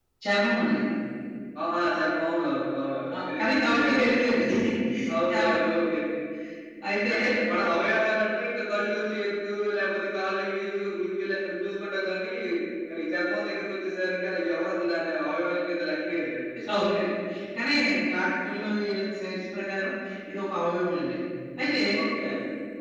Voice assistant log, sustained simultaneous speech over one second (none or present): present